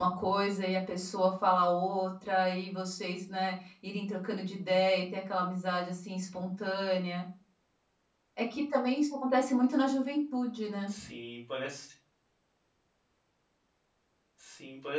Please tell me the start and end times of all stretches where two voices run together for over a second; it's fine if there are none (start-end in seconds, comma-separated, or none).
none